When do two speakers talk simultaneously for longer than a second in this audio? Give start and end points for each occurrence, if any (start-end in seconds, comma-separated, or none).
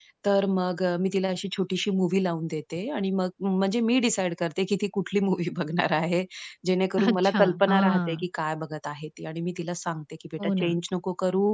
7.0-8.2